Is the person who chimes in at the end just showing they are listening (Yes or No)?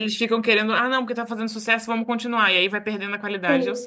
No